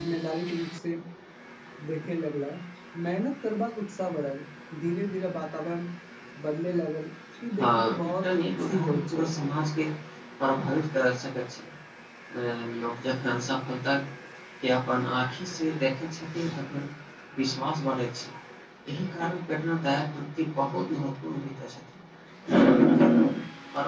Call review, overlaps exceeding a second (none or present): present